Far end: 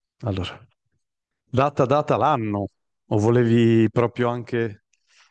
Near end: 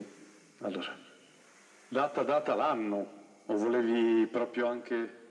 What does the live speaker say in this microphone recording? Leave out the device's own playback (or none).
none